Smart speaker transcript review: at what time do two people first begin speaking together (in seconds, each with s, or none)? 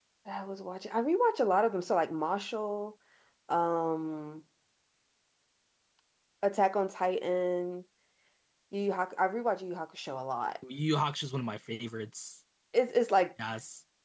none